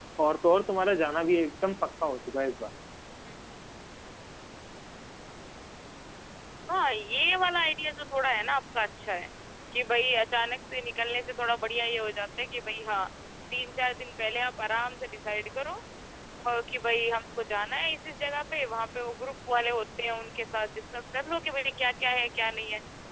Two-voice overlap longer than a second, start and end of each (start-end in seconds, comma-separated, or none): none